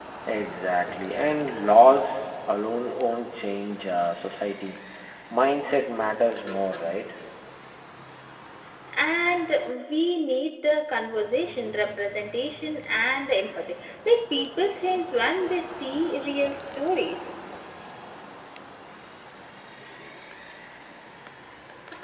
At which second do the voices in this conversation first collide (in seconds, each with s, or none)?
none